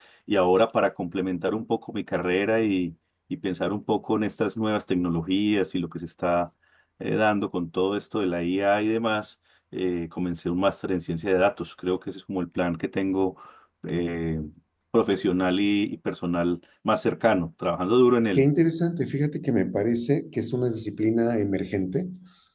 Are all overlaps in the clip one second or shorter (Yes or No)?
Yes